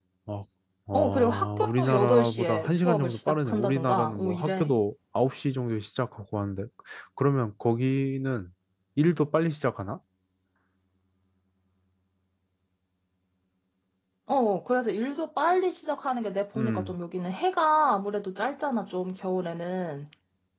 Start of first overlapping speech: 0.9 s

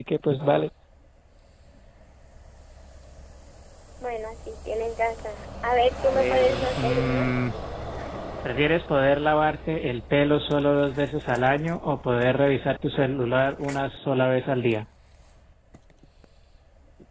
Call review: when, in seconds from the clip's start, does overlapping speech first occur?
6.0 s

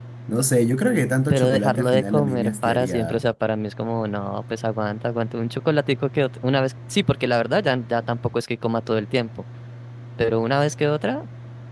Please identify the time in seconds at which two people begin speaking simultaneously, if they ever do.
1.3 s

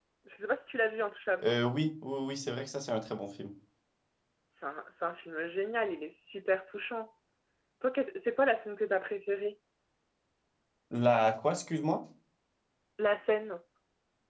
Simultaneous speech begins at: none

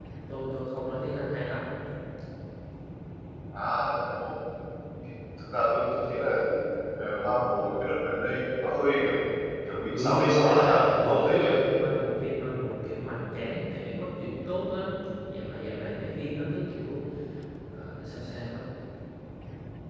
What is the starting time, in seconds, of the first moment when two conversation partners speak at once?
9.9 s

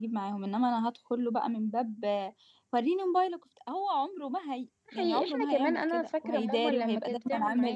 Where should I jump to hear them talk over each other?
4.9 s

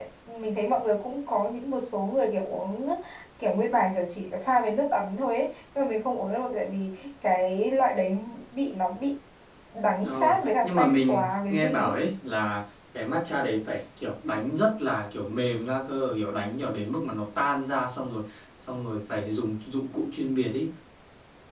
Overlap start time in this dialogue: 10.0 s

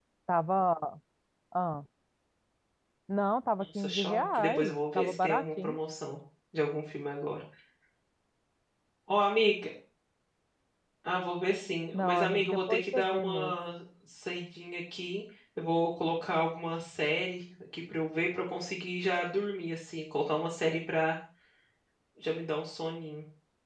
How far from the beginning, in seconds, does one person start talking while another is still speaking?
3.6 s

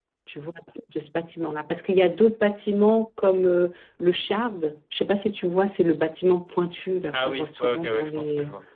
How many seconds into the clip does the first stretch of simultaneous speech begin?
7.1 s

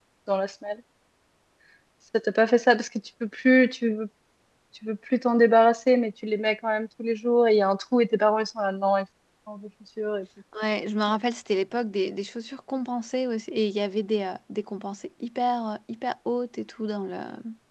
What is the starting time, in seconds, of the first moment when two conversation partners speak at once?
none

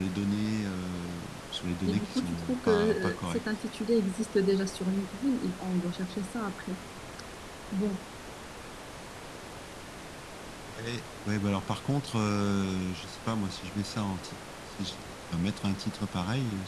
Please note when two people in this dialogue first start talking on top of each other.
1.9 s

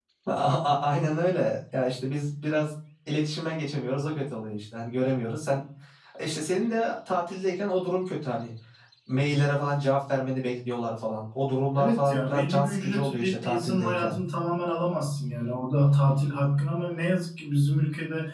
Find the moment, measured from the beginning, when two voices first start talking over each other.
11.8 s

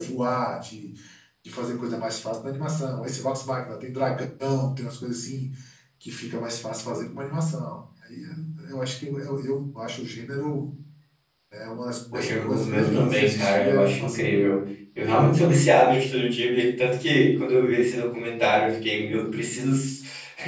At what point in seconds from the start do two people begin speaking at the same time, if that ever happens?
12.1 s

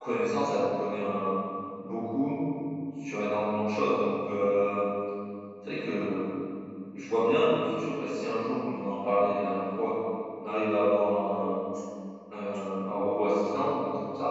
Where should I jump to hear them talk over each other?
none

